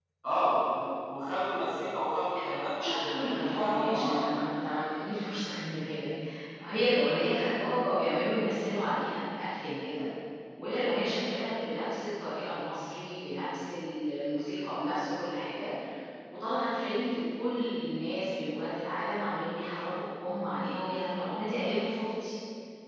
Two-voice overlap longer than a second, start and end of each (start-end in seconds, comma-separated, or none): 2.8-4.2